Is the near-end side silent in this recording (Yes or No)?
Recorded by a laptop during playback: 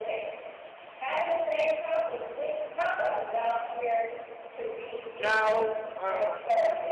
No